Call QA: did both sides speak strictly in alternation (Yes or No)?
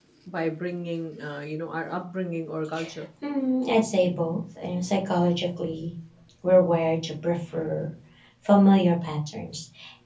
Yes